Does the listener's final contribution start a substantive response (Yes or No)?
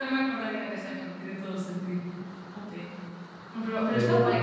No